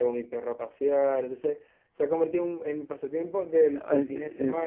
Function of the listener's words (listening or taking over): taking over